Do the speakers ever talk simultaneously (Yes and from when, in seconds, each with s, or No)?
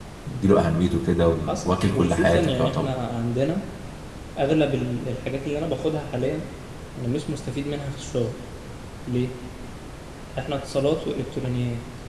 Yes, from 1.6 s